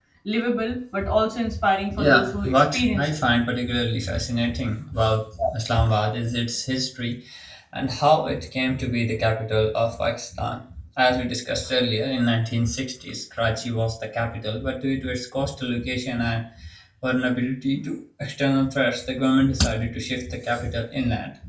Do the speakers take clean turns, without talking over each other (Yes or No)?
No